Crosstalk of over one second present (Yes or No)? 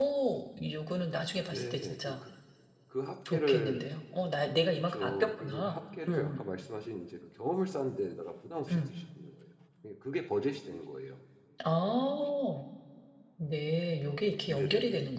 Yes